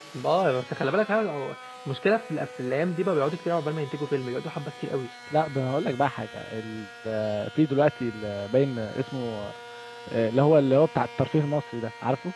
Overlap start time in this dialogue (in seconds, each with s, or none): none